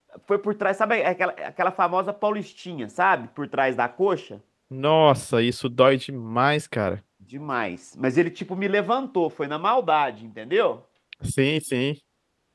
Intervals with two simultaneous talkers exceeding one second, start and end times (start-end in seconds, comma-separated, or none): none